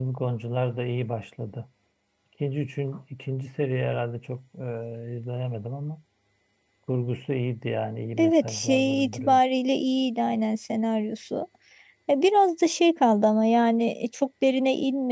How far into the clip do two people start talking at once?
8 s

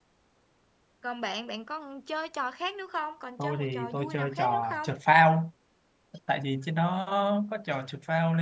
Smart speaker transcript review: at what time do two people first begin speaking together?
3 s

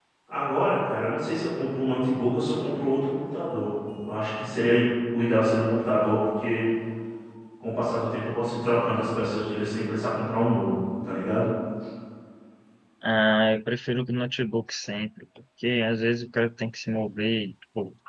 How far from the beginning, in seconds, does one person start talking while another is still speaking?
none

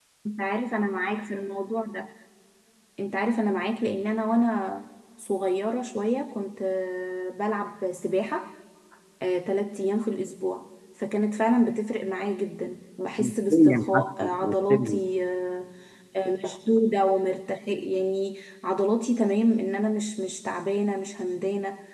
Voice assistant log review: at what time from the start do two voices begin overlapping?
13 s

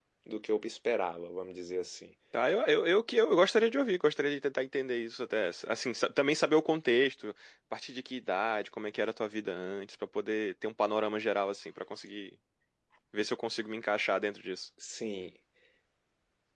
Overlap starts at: none

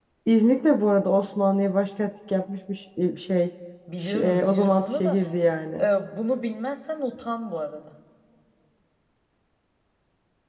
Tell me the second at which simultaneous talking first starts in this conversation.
4 s

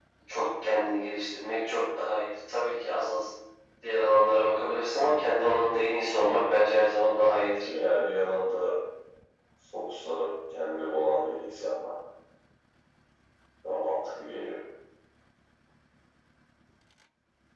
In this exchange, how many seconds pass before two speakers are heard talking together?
none

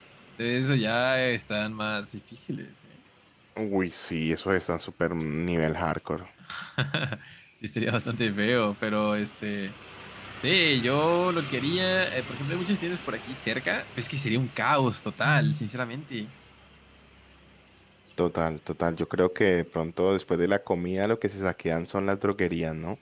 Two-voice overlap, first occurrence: none

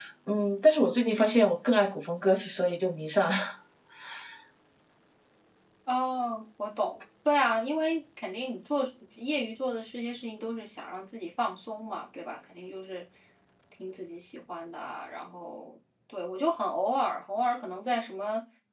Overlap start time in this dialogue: none

